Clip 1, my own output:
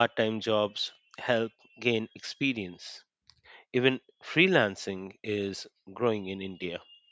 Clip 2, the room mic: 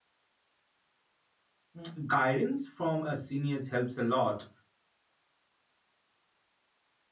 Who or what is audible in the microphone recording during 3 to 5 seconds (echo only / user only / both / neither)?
user only